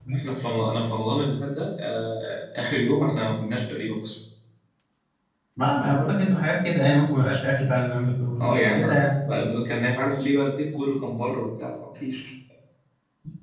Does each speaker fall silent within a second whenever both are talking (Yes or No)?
Yes